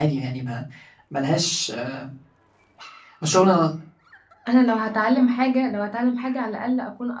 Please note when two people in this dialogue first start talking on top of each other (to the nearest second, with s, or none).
none